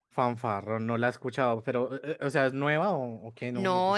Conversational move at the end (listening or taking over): taking over